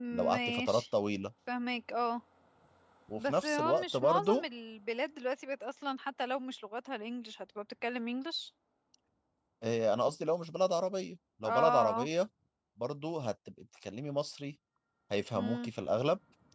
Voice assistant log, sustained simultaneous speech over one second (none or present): present